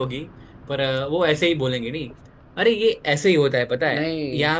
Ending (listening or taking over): listening